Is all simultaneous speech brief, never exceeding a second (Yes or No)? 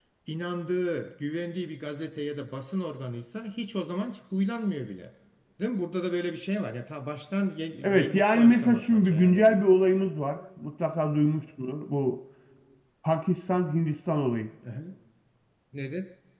No